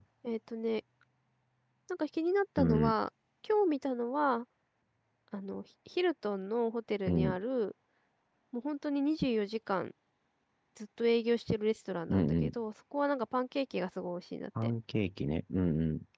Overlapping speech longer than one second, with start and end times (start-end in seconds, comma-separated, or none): none